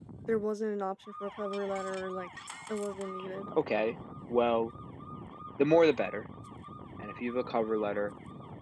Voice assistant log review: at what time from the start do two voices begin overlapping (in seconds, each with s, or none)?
none